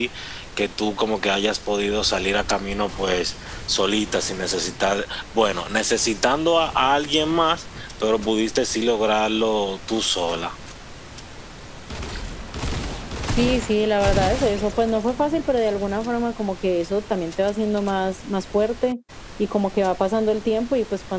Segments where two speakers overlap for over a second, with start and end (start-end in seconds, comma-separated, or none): none